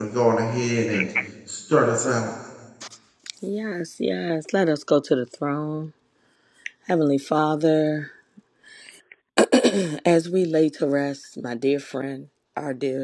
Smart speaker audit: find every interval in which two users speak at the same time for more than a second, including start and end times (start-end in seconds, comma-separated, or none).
none